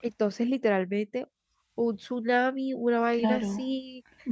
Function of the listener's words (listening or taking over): taking over